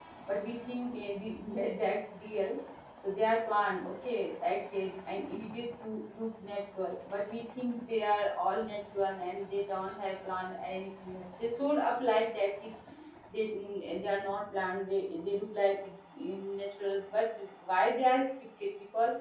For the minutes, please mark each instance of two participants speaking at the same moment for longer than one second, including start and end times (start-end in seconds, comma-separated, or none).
none